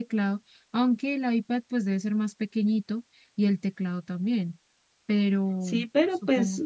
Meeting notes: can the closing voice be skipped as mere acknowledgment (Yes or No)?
No